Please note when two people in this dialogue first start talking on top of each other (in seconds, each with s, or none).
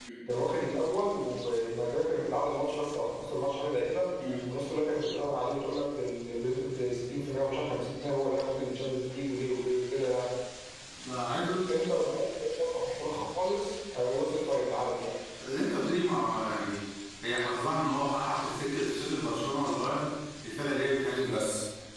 none